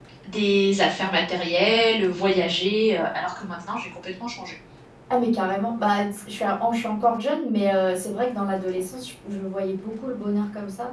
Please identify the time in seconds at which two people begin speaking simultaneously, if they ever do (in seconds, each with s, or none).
none